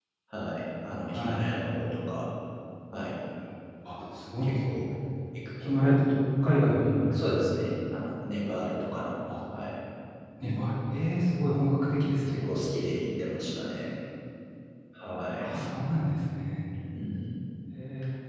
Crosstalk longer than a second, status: none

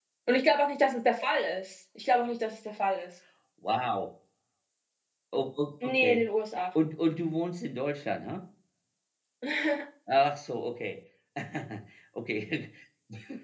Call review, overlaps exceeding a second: none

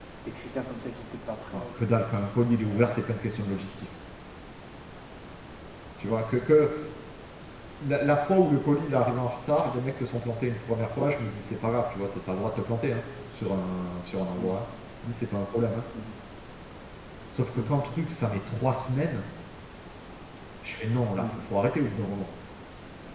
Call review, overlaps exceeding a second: none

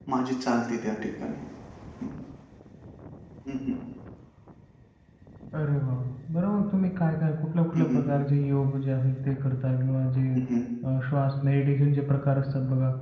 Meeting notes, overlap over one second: none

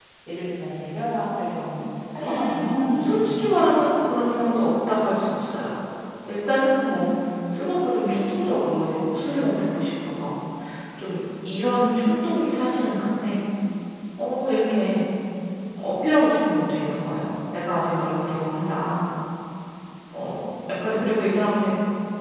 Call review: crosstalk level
present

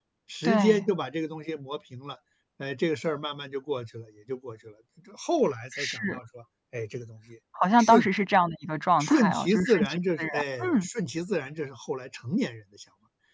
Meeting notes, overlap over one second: present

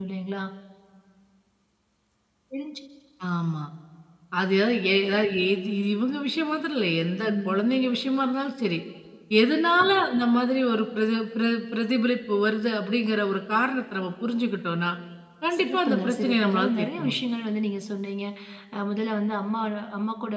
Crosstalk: present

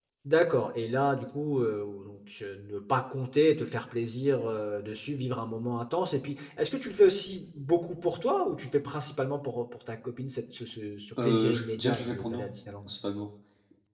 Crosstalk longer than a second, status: present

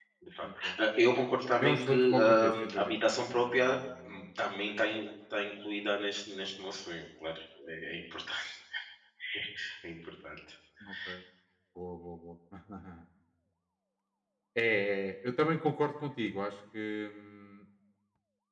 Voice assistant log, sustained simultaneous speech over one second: present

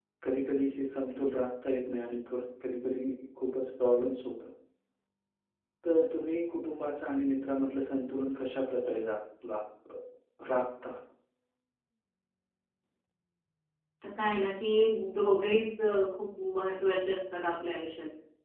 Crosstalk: none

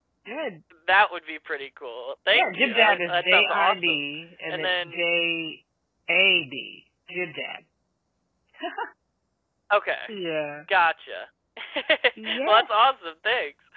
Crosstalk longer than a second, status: present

